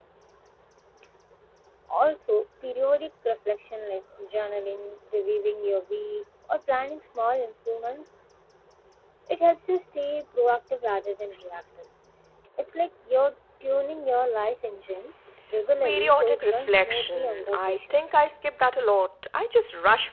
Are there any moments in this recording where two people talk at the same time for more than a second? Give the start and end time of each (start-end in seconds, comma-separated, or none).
15.8-18.0